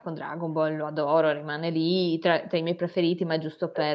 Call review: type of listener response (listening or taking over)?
taking over